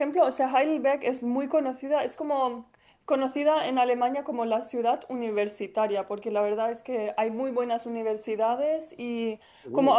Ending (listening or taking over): listening